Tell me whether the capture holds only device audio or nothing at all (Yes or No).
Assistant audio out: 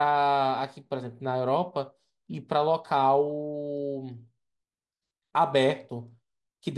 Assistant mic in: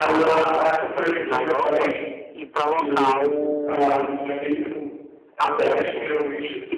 No